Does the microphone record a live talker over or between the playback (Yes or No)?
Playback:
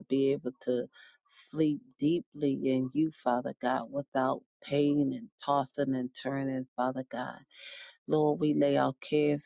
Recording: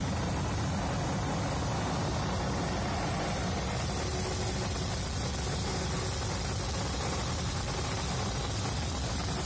No